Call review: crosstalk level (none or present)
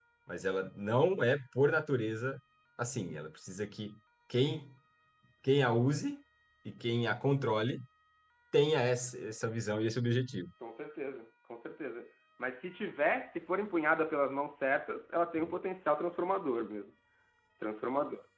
none